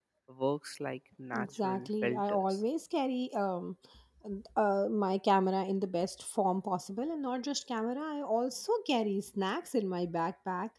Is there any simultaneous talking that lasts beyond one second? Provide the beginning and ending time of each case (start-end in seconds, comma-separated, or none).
1.3-2.6